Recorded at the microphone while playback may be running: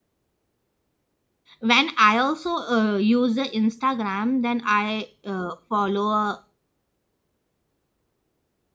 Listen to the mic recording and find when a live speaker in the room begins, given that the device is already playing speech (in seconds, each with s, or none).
1.6 s